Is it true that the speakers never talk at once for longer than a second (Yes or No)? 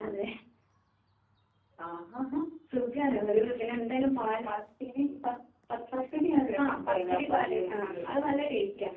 No